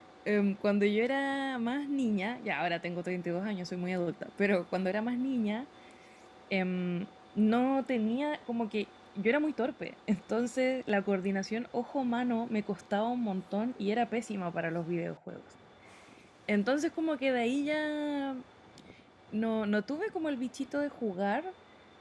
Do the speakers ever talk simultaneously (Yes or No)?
No